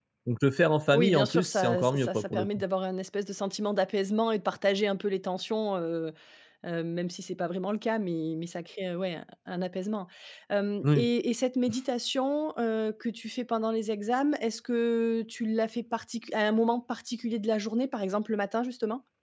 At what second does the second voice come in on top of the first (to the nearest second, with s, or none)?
1 s